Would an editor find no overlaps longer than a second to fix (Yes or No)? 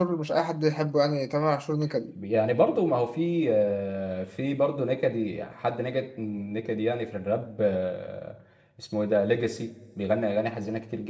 Yes